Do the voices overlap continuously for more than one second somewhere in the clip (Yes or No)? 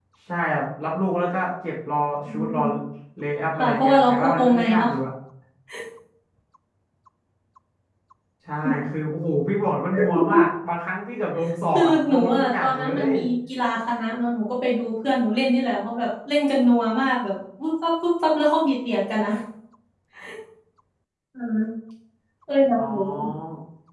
Yes